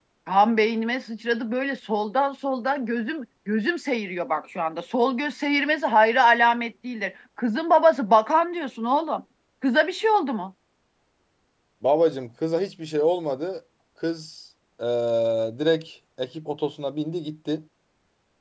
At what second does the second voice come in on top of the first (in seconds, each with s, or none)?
none